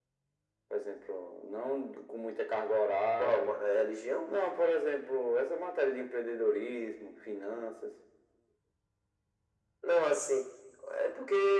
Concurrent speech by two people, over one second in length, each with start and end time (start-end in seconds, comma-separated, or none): none